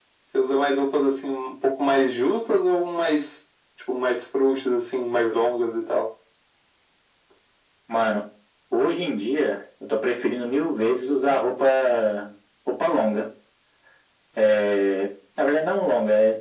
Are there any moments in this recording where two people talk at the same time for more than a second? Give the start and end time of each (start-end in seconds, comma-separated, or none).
none